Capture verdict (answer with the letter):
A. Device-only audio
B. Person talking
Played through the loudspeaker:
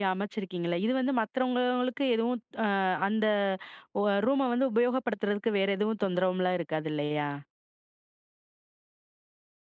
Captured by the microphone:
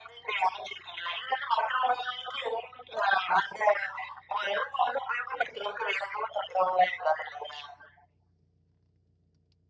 A